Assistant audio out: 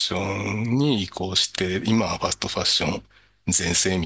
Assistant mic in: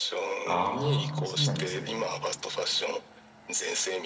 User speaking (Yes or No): Yes